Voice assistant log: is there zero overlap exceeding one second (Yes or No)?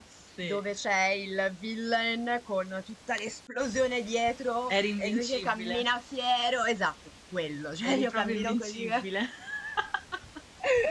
No